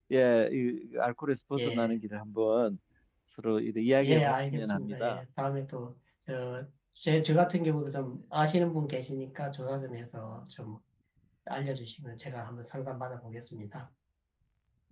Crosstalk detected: Yes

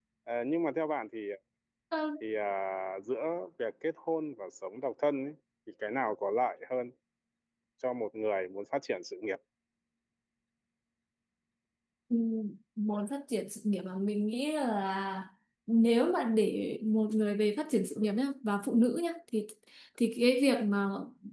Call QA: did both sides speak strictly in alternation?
Yes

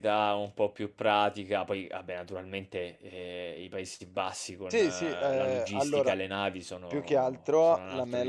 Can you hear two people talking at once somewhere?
Yes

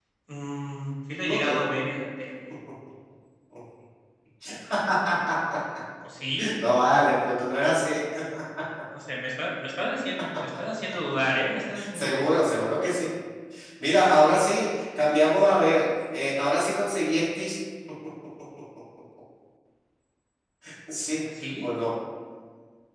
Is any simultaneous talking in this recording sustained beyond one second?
No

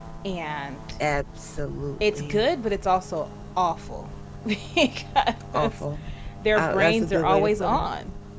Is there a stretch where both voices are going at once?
Yes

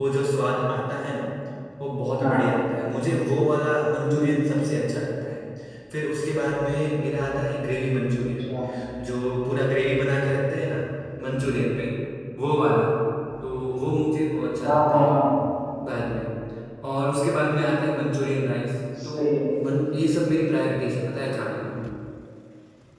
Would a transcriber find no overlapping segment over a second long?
Yes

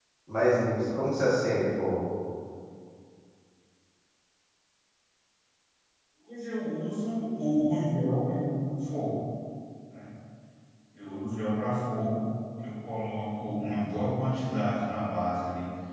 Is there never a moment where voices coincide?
Yes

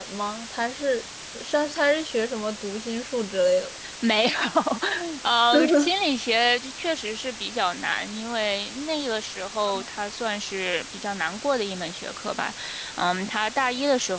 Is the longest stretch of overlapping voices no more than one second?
Yes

